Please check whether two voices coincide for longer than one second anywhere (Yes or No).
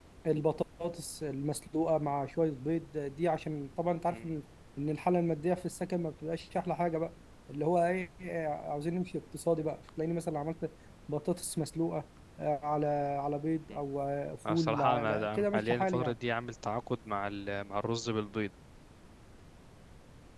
Yes